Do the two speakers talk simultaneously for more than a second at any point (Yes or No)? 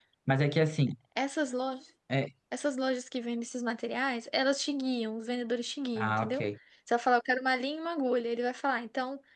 No